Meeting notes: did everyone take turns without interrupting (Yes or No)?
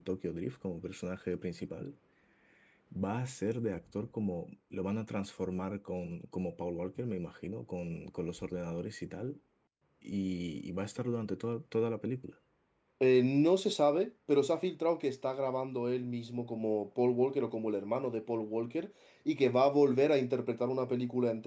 Yes